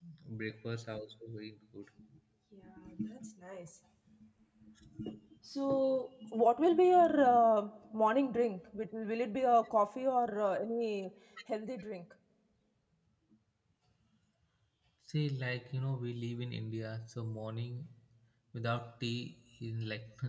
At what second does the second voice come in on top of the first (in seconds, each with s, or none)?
none